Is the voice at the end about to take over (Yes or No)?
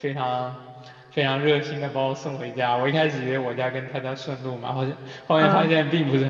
No